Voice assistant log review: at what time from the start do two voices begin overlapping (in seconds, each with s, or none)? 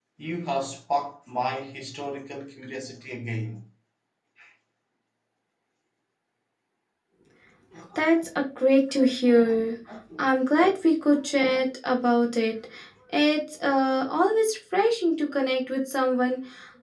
none